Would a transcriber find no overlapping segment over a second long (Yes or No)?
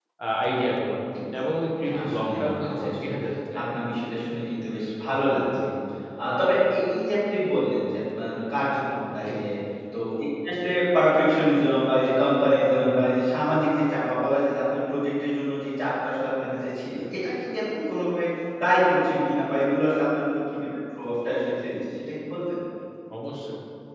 No